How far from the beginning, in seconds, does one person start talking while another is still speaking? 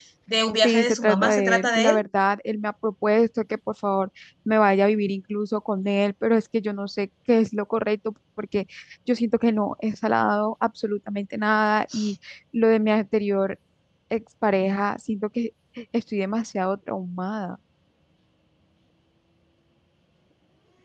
1 s

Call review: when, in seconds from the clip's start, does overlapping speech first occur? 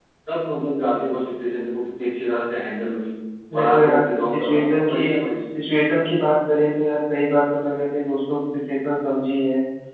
4 s

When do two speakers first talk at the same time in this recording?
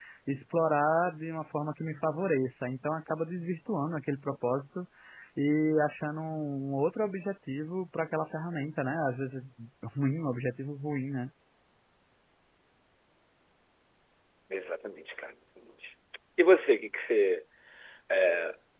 none

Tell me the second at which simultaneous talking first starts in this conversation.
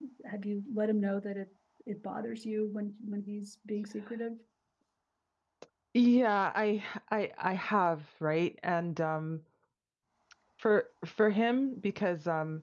none

